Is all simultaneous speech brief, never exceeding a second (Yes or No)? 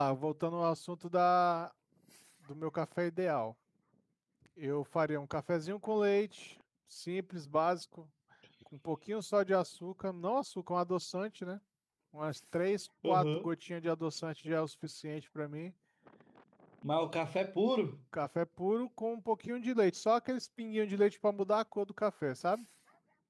Yes